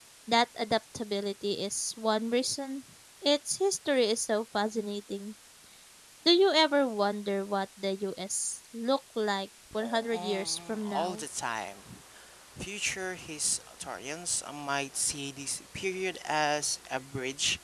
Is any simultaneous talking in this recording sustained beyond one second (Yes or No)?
Yes